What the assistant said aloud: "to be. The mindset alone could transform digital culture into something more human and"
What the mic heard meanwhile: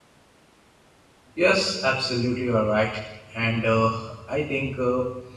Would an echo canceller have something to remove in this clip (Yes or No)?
No